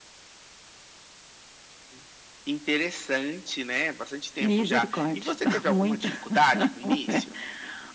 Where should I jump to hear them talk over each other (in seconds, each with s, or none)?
4.4 s